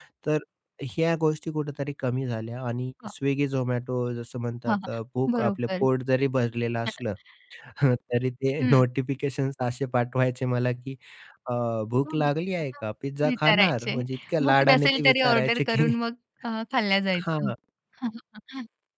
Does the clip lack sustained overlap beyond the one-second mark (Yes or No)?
No